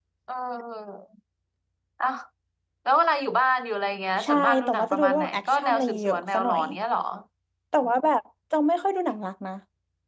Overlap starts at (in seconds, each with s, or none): 4.2 s